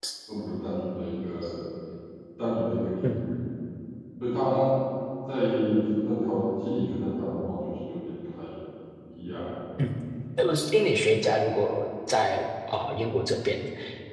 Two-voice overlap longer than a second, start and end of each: none

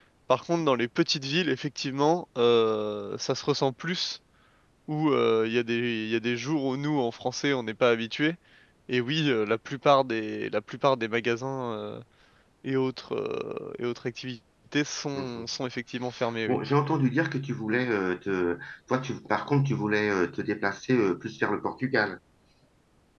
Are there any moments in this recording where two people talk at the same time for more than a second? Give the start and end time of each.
none

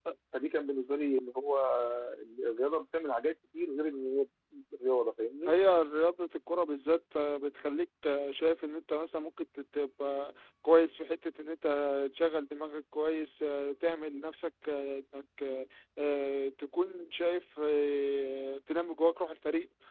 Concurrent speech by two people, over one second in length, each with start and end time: none

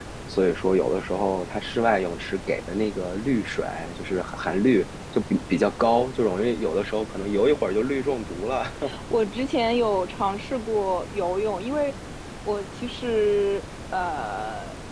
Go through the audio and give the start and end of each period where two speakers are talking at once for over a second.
none

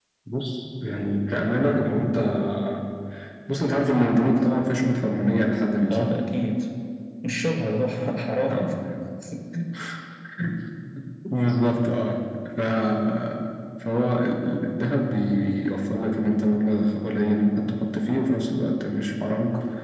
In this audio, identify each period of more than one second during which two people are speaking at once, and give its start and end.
none

